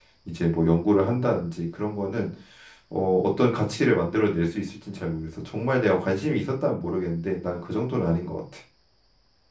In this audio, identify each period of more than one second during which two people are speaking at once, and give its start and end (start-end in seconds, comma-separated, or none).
none